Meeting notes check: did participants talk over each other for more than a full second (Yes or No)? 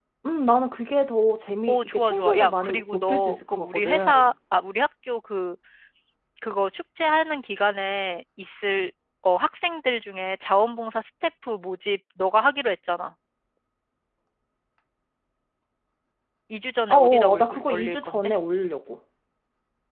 Yes